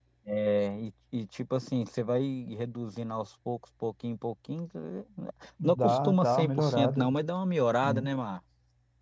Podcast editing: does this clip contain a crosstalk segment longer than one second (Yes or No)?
Yes